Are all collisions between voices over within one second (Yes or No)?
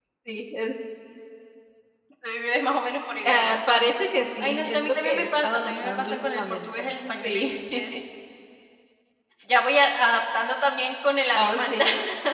No